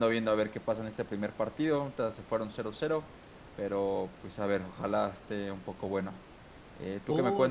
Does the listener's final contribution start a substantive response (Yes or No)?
Yes